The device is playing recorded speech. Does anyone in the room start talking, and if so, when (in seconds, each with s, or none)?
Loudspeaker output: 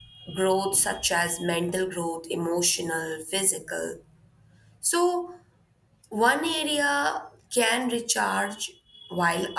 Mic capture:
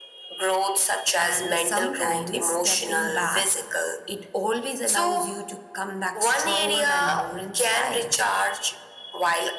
1.2 s